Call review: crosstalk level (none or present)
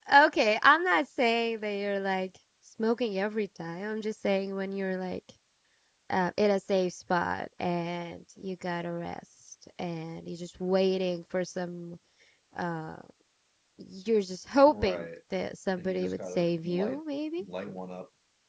present